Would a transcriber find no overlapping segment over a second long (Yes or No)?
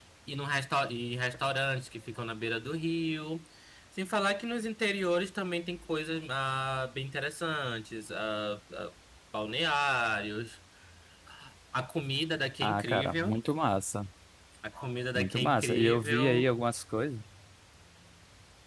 No